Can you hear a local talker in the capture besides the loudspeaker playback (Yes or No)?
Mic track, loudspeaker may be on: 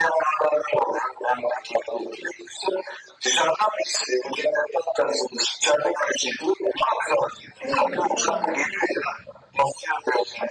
Yes